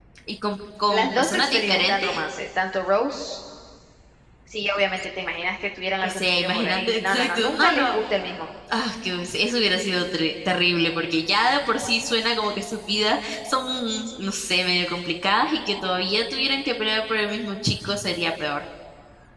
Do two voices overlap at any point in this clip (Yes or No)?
Yes